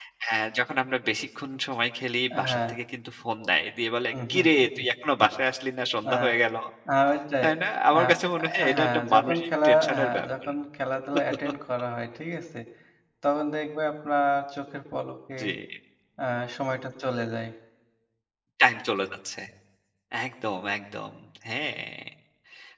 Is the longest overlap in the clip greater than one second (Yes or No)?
Yes